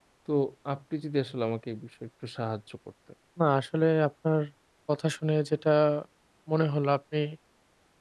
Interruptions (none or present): none